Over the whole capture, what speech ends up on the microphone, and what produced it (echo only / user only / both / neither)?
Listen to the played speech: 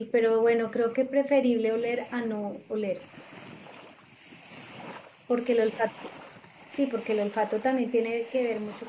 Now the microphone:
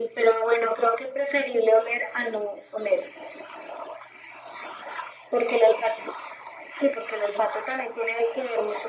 echo only